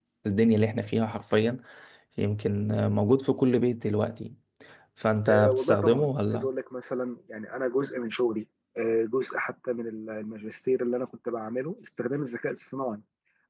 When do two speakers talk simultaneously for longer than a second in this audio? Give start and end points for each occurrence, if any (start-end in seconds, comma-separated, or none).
5.3-6.5